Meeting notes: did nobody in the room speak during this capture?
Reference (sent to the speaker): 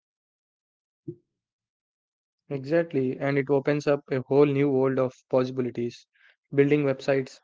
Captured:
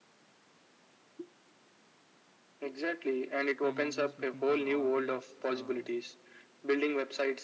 No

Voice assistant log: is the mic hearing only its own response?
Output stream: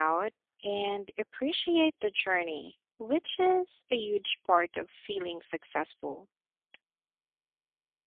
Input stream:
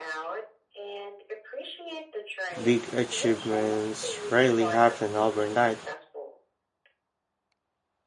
No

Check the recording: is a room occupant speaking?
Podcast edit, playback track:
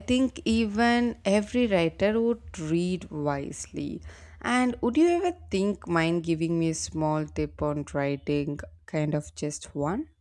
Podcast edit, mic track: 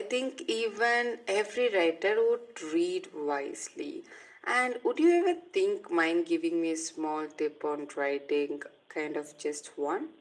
No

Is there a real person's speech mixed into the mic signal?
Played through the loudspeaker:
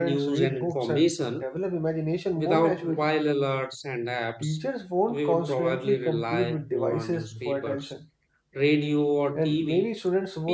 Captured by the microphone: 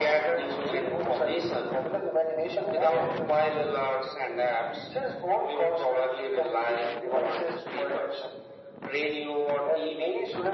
No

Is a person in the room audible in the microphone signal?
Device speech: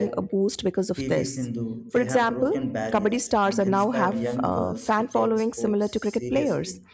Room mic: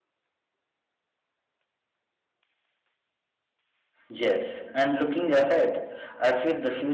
Yes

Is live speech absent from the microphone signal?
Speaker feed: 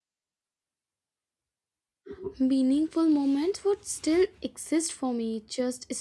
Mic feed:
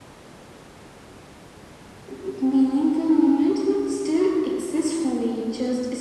Yes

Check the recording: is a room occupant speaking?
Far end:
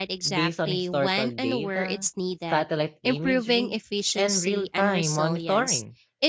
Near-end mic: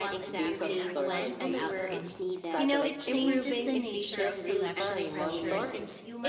Yes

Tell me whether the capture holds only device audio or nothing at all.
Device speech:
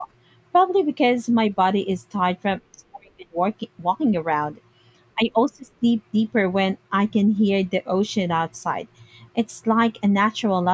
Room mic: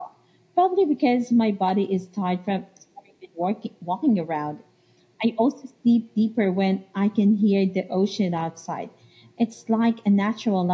Yes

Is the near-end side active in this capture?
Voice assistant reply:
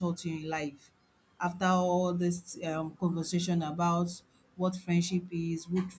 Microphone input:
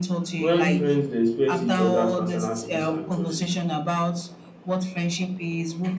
Yes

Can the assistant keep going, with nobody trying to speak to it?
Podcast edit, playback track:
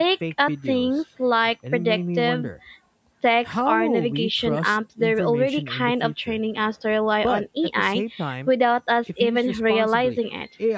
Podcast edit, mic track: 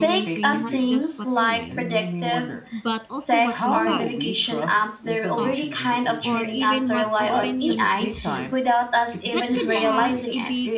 No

